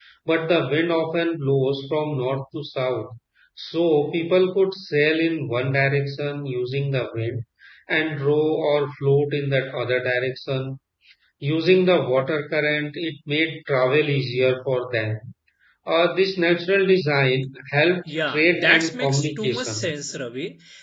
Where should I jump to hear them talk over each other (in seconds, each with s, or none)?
18.1 s